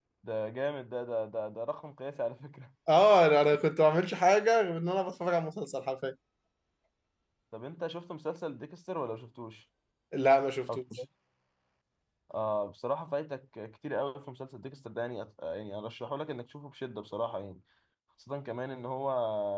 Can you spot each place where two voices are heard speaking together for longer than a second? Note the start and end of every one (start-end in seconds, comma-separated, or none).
none